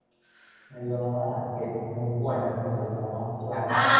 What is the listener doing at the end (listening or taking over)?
taking over